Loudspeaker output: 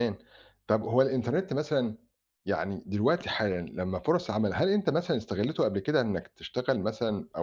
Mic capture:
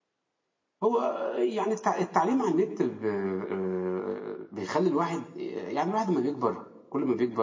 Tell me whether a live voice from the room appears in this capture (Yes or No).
Yes